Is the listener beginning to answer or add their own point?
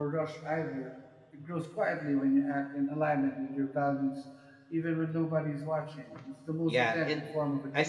Yes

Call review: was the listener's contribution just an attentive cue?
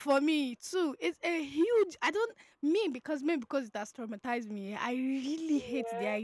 Yes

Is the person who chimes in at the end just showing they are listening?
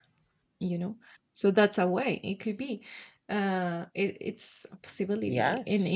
Yes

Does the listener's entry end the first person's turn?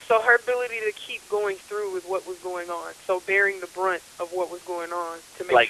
No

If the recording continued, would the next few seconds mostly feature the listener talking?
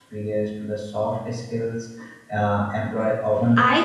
Yes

